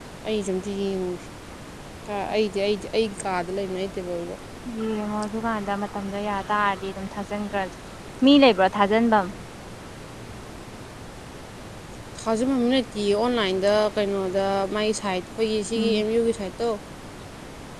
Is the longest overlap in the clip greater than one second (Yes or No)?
No